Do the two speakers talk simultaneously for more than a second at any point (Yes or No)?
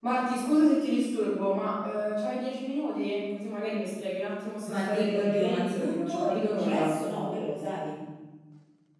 Yes